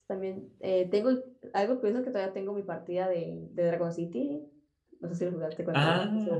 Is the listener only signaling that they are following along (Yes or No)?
No